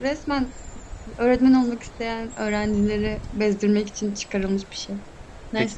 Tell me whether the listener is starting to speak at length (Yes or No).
Yes